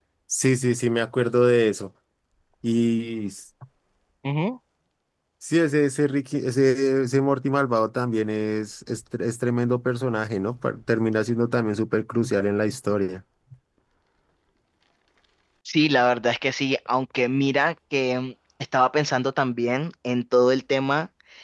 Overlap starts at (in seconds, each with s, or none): none